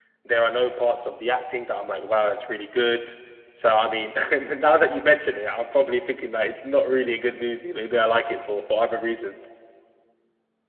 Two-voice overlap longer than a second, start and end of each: none

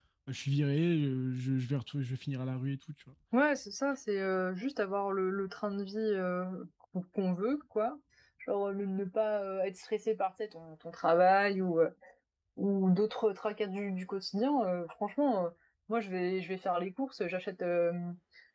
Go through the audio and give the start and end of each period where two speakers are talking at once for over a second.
none

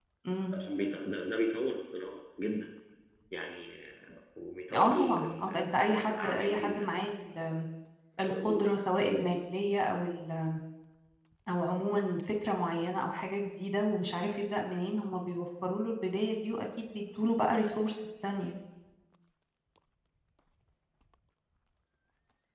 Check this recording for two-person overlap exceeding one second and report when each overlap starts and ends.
4.8-7.0

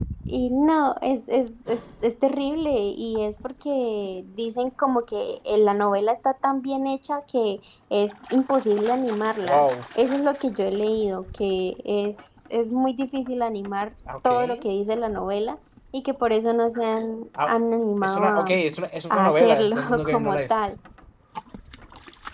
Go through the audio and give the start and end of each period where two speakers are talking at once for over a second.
19.1-20.4

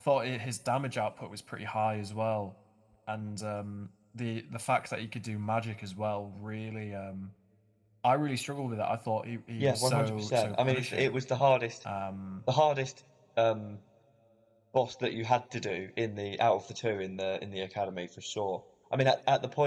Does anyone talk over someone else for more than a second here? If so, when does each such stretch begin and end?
9.6-11.2

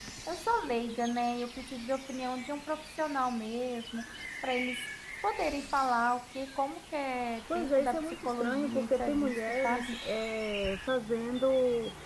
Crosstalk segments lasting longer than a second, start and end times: 7.6-10.0

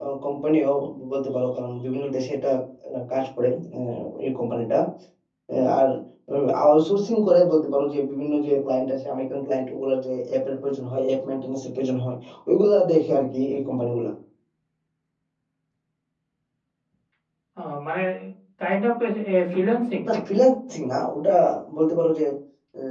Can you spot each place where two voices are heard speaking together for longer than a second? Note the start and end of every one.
none

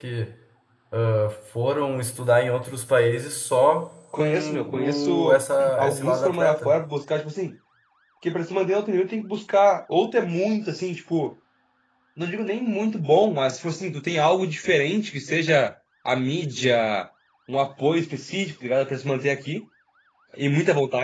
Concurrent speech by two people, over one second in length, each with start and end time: 4.2-6.7

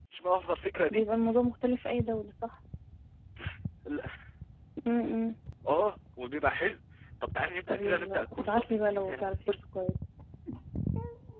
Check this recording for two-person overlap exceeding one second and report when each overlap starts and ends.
7.7-9.5

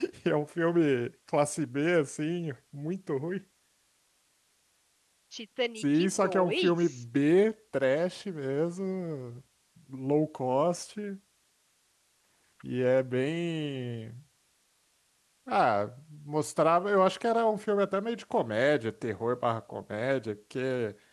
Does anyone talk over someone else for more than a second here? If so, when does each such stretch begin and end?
5.8-7.0

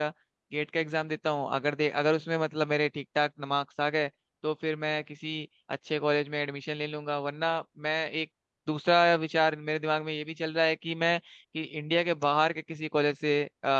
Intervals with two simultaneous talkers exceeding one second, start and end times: none

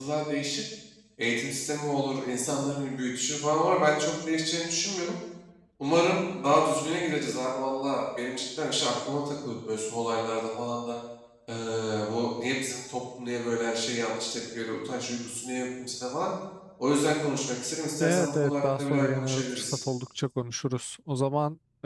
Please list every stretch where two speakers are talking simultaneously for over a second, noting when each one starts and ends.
18.0-19.8

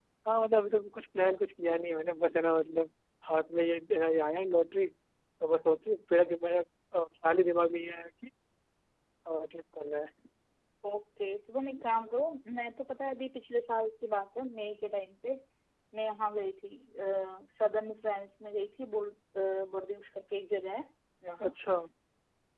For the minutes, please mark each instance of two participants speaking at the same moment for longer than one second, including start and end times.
none

